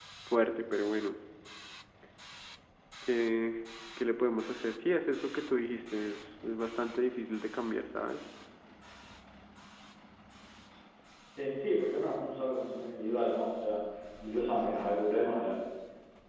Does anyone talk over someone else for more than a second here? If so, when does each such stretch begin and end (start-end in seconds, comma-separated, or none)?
none